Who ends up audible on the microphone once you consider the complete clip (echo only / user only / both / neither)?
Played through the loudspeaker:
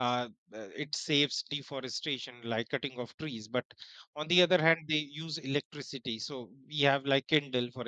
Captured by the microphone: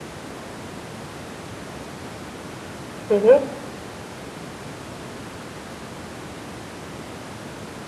user only